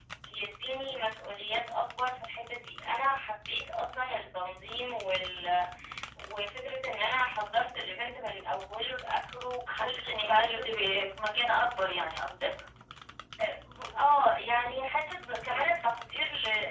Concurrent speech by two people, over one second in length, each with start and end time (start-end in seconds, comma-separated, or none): 9.7-10.9